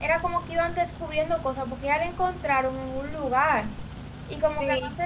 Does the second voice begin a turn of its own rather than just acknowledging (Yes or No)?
Yes